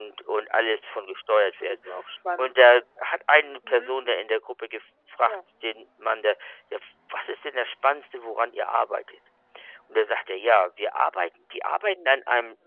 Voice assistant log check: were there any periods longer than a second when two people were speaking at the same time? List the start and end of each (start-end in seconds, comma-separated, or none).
none